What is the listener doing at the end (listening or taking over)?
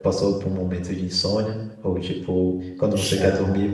listening